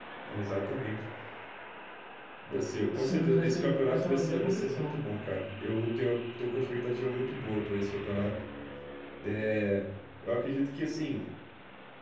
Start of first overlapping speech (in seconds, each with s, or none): 2.9 s